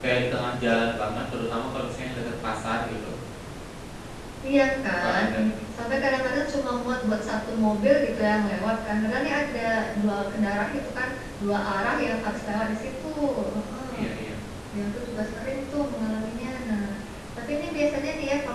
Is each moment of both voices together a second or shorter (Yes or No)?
Yes